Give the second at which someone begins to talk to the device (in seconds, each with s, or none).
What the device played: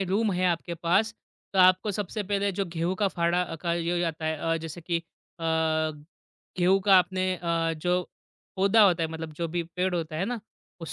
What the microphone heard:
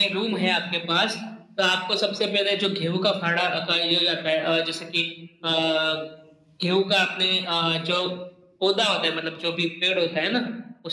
none